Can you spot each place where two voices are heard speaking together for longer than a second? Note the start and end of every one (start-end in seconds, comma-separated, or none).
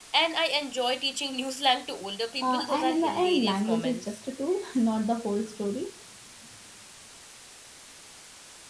2.4-4.2